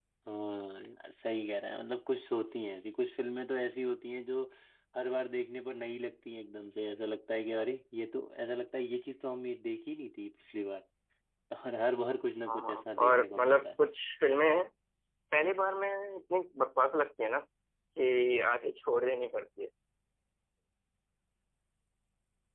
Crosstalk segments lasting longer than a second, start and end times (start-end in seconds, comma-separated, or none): 12.5-13.7